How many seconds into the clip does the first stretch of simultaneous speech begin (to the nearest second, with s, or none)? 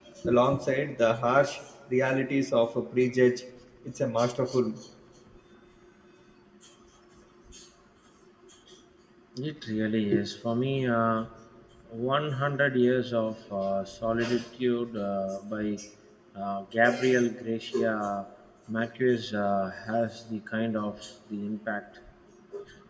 none